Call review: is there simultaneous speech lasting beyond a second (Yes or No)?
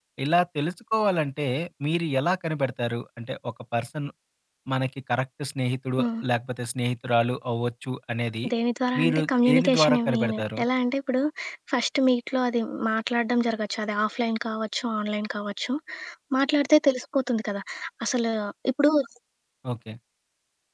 Yes